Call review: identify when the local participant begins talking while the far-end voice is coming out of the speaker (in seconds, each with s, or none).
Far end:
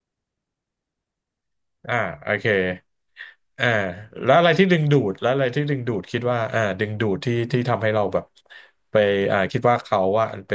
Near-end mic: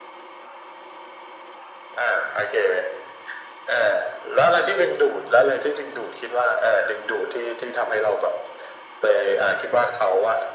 none